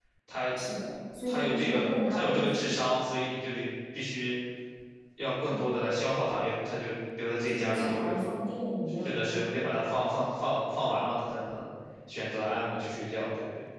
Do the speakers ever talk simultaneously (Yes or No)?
Yes